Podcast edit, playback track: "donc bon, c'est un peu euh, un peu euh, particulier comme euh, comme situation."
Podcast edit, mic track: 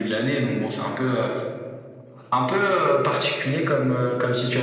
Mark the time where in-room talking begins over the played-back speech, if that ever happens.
none

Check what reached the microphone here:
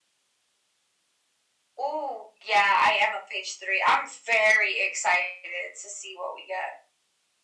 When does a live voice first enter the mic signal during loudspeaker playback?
none

